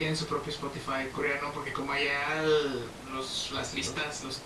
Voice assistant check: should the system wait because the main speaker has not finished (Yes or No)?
Yes